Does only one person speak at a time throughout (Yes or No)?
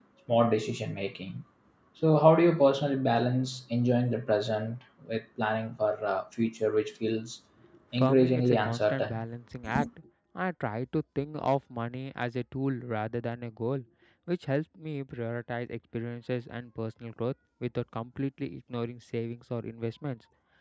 No